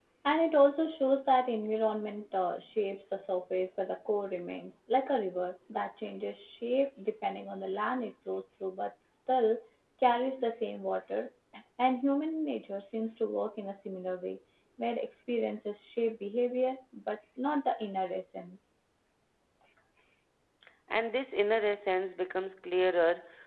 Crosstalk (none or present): none